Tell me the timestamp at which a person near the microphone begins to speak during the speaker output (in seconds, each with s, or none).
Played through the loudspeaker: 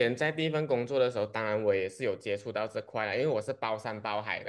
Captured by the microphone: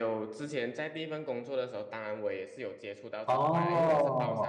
3.2 s